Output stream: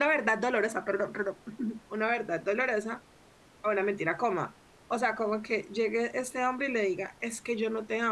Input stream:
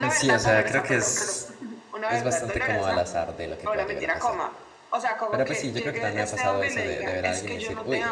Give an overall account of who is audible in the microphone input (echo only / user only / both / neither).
both